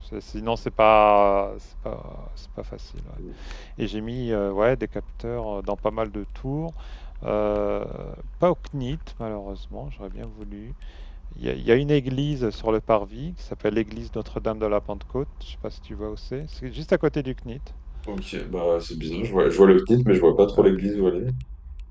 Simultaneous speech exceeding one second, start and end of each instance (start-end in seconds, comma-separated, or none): none